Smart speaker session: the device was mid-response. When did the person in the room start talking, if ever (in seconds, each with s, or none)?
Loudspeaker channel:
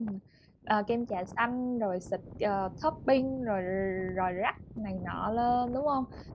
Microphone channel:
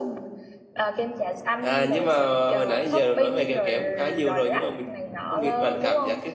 1.6 s